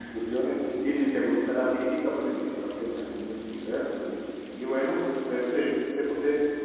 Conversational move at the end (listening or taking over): listening